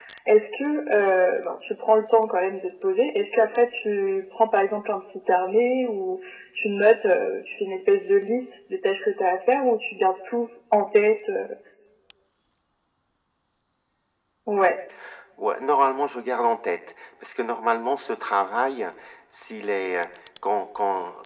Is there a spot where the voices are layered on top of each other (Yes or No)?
No